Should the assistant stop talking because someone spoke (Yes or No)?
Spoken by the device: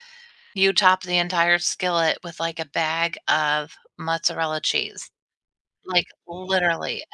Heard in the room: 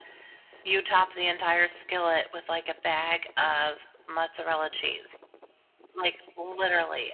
No